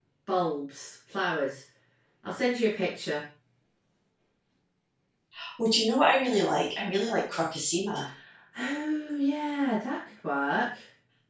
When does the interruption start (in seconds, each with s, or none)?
none